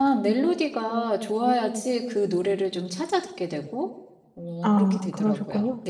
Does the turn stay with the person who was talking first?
No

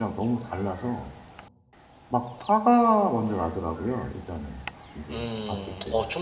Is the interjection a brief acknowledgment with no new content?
No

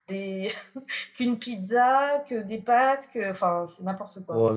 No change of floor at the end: No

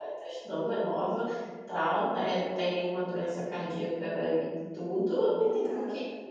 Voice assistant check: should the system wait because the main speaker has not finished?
Yes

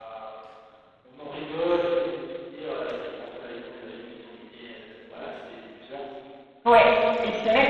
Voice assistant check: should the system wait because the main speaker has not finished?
No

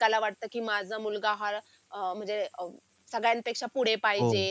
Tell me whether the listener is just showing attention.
No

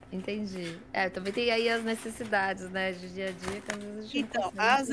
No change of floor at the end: No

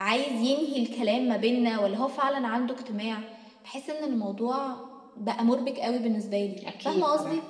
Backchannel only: No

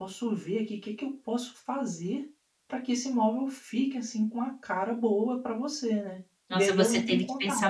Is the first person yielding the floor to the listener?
Yes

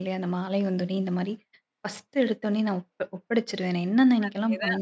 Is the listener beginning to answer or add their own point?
No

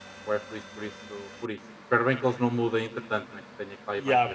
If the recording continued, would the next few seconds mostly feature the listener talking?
Yes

